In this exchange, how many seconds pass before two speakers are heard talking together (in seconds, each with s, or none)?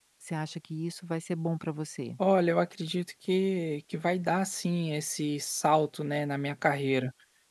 none